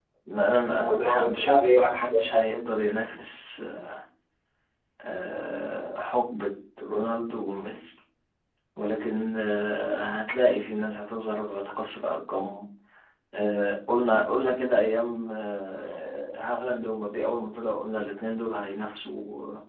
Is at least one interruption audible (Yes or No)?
Yes